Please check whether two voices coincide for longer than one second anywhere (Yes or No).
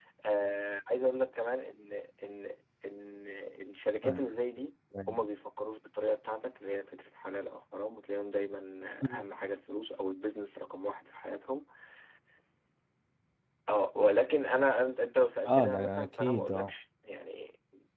Yes